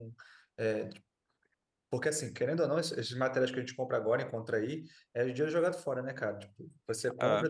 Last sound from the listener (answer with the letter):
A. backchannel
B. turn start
A